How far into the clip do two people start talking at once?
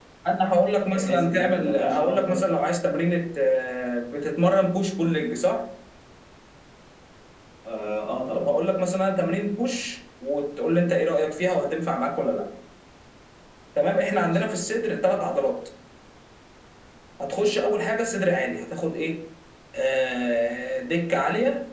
0.8 s

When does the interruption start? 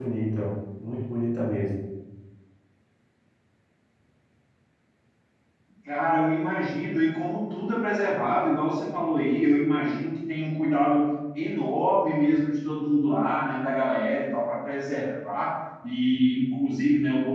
none

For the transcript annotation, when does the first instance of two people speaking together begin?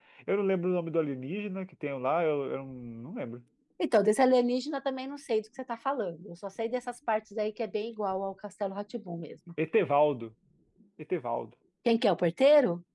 none

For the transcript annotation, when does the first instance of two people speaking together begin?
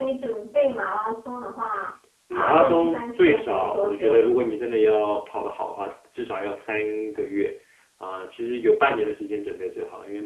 2.3 s

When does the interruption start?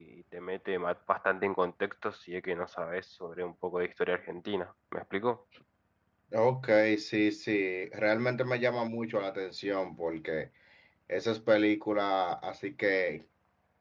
none

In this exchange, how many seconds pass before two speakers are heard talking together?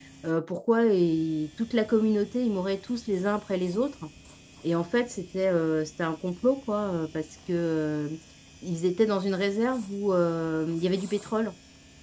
none

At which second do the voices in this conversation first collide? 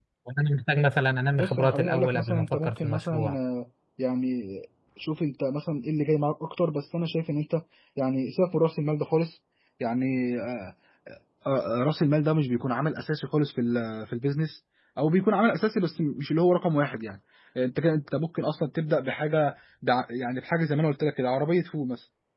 1.4 s

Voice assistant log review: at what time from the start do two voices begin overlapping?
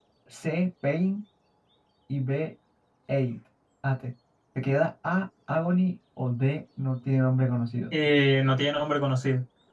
none

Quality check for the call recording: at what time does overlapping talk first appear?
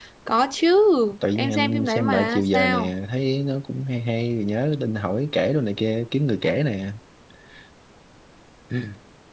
1.4 s

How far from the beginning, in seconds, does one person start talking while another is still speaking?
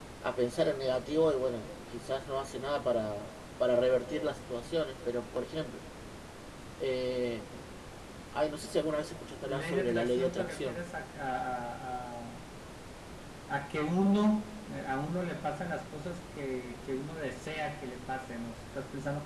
9.4 s

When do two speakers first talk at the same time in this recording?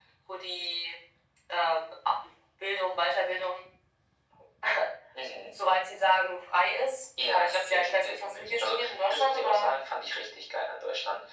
7.2 s

